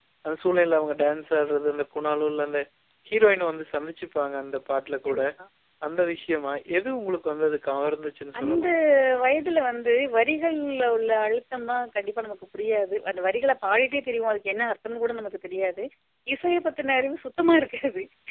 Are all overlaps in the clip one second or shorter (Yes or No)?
Yes